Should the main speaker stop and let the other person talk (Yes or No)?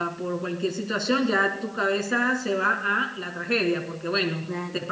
Yes